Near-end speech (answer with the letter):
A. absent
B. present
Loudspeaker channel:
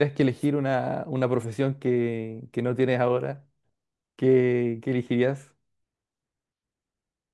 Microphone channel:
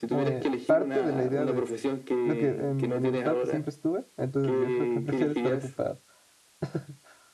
B